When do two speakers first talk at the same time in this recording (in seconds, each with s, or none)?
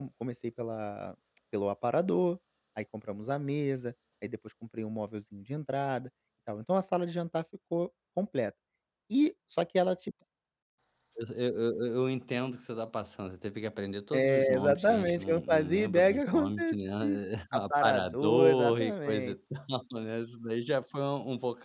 14.1 s